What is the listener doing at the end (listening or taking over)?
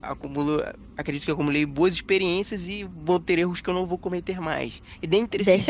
taking over